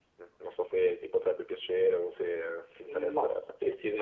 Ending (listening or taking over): taking over